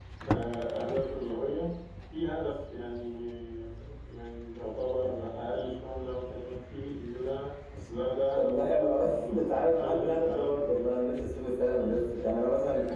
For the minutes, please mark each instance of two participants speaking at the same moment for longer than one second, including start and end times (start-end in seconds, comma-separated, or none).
8.3-10.8